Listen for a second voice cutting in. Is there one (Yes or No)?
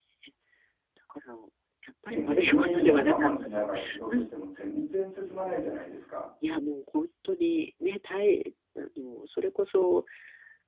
Yes